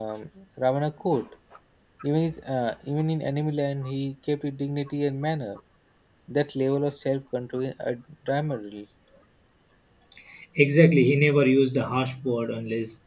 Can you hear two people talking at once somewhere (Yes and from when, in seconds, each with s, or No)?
No